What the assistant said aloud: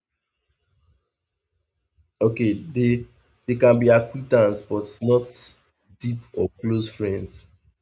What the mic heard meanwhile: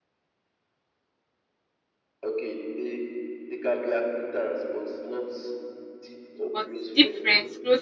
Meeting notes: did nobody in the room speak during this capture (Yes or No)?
No